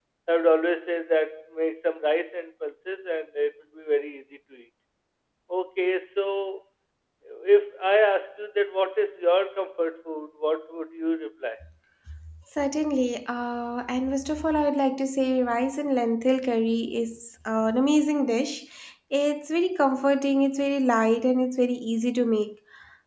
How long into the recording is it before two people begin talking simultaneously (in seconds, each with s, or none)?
none